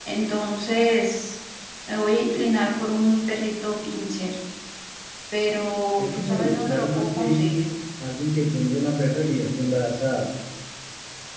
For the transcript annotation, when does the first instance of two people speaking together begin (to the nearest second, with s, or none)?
6 s